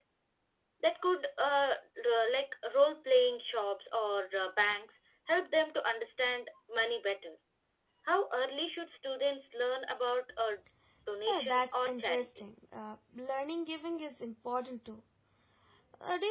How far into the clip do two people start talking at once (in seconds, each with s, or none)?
11.3 s